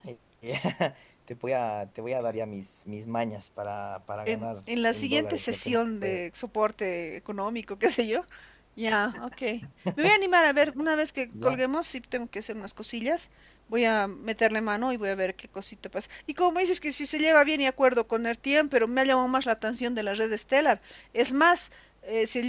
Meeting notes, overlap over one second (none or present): present